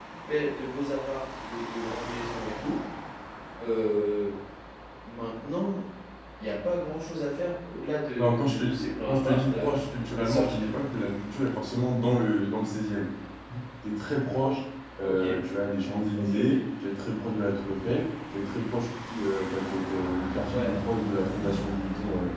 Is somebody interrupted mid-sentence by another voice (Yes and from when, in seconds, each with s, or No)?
Yes, from 8.2 s